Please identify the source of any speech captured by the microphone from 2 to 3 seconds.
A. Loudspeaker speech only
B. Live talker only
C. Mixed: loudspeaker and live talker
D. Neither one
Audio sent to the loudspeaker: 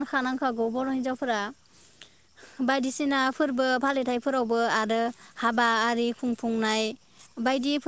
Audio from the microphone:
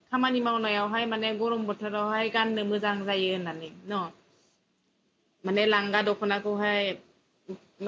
B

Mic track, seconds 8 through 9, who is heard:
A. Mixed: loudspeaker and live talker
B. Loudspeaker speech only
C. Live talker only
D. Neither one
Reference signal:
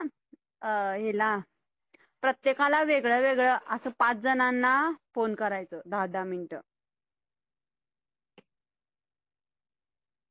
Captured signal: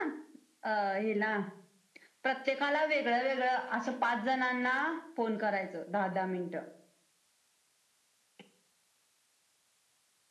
D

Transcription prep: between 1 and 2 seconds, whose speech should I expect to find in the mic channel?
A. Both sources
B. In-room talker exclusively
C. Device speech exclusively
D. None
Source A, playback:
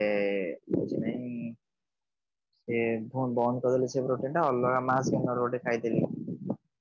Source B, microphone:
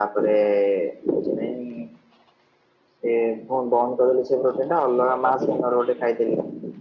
C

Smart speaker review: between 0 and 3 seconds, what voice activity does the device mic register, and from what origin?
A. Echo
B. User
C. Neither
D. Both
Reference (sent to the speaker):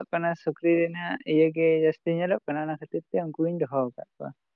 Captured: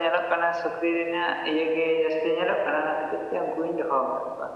A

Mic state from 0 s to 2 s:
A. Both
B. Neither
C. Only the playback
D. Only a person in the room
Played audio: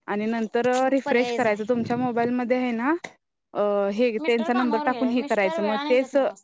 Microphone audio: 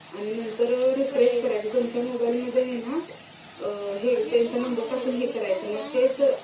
C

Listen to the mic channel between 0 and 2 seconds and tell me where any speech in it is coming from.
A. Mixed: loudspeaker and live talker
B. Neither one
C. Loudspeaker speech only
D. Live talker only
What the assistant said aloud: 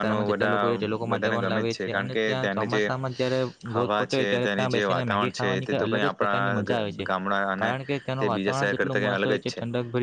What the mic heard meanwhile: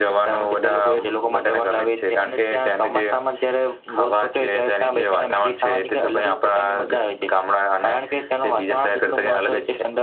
C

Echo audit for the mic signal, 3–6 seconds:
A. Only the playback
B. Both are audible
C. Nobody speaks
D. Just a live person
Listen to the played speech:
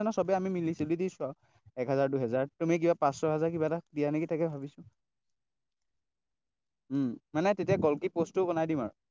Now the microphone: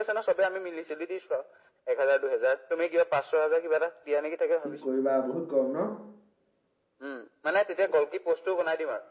B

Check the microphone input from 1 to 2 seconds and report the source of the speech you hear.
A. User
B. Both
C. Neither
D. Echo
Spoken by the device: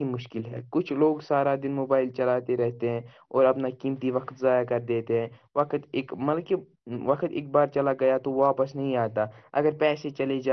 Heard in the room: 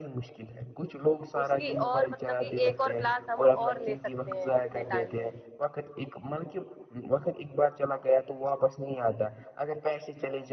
B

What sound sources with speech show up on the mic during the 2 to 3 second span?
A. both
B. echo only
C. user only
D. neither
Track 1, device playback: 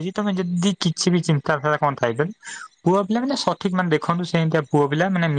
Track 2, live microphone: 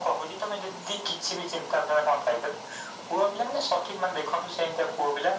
B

